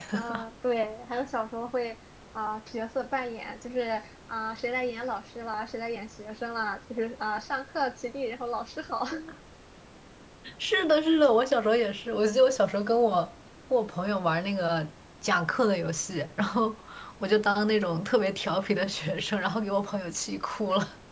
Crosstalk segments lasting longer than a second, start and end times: none

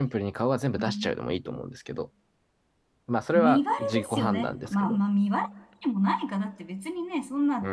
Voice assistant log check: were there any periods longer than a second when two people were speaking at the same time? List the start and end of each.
3.3-5.0

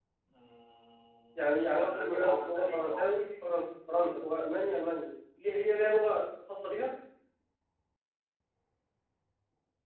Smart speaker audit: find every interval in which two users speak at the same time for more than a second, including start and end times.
1.4-3.3

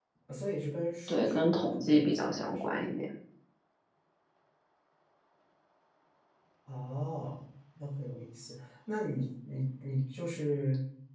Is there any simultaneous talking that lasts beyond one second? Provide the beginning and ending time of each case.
1.1-2.8

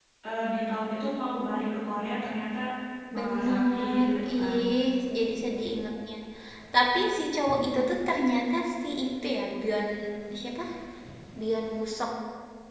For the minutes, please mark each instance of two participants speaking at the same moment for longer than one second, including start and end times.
3.2-4.6

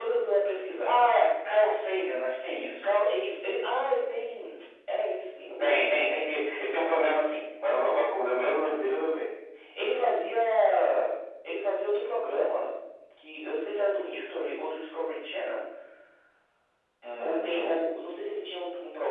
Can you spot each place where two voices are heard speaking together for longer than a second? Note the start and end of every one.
none

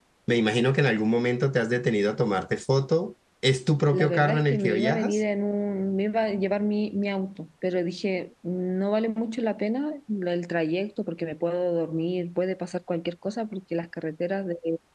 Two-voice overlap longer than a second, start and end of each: 3.9-5.2

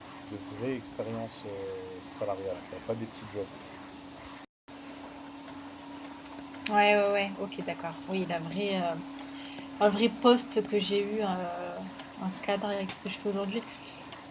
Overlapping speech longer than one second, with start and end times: none

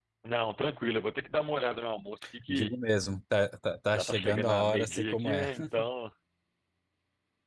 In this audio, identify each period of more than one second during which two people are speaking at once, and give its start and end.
3.9-5.5

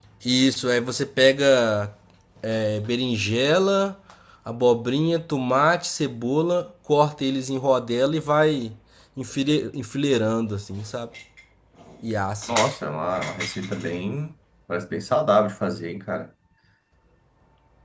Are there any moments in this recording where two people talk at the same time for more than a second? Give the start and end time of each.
none

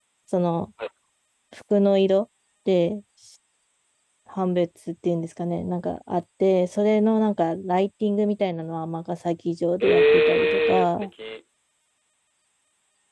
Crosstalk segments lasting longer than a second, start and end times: 9.8-11.1

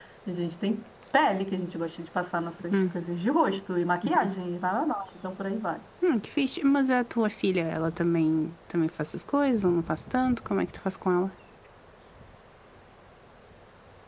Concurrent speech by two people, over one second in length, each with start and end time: none

